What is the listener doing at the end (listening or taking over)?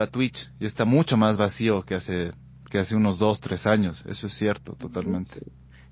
taking over